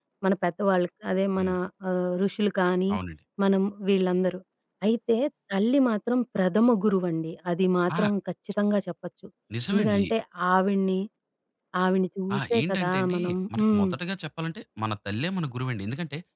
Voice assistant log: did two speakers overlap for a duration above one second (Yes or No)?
Yes